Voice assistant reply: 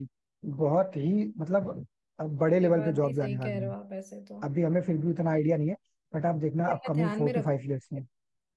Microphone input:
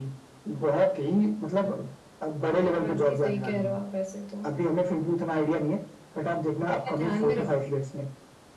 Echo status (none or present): present